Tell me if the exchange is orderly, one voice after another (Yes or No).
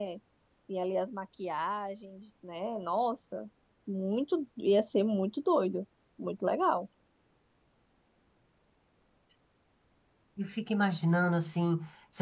Yes